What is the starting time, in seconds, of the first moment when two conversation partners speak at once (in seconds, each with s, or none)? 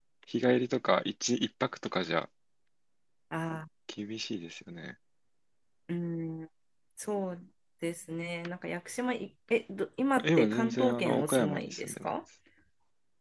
10.2 s